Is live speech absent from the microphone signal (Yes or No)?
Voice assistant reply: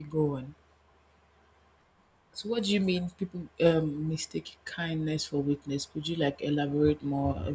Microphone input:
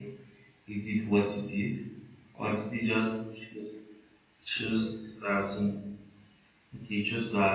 No